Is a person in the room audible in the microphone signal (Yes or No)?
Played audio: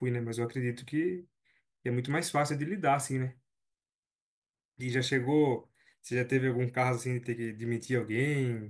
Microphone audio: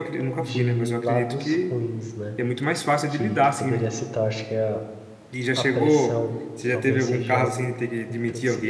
Yes